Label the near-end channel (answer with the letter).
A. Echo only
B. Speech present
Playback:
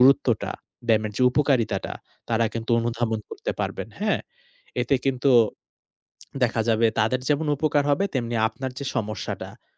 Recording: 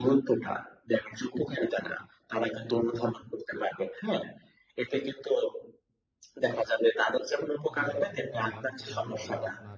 B